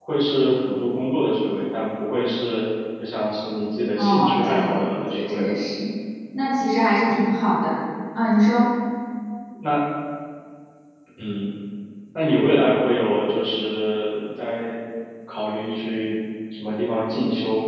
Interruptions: present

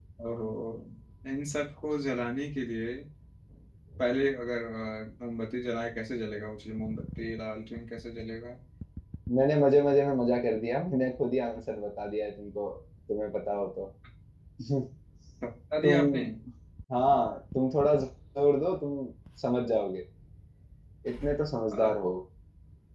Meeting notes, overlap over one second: none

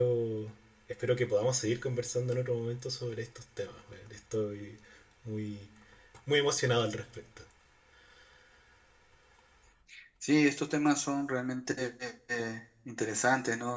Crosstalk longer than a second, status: none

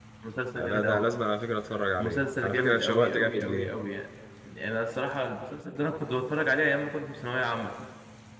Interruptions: present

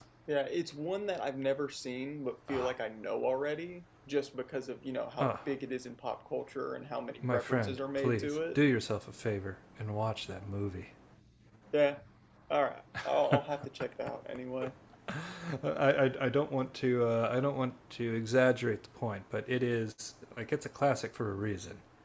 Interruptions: present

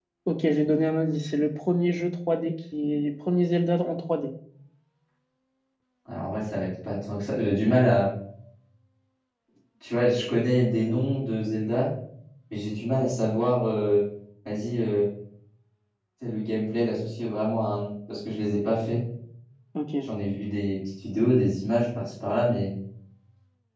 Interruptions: none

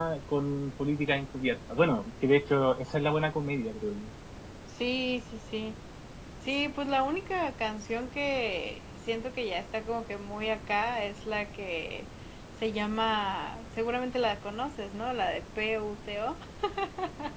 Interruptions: none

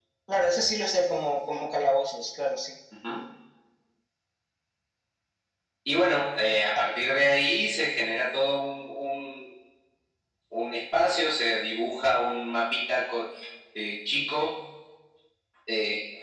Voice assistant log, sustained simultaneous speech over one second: none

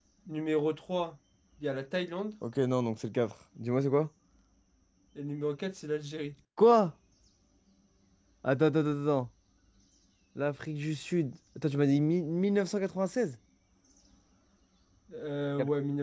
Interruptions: none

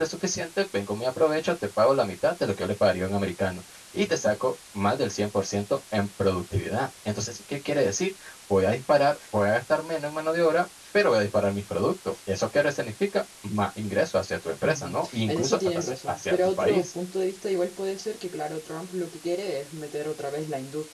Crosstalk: present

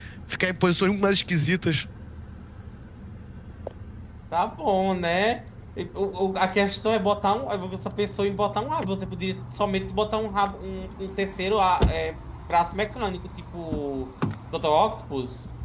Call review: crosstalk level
none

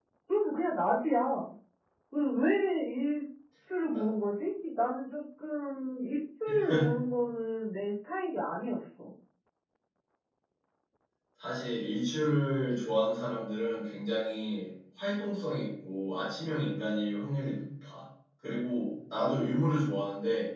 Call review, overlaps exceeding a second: none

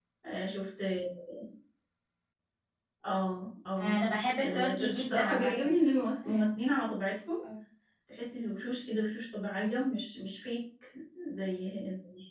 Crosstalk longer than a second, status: present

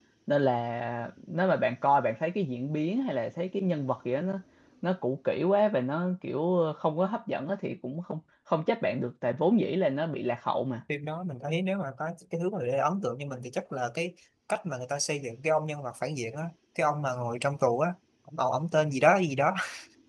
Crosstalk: none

